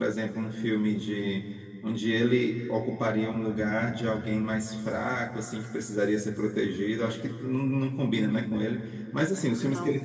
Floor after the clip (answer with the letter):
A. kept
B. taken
A